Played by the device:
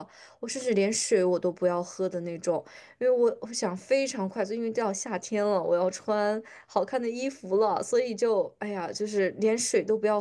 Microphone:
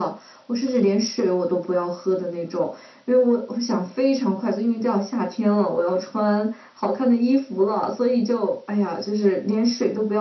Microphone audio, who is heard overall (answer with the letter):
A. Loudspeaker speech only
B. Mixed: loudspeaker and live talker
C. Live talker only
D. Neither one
A